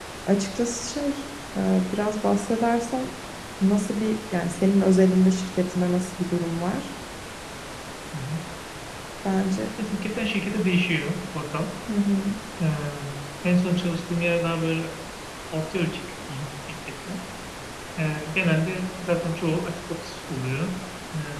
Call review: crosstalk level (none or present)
none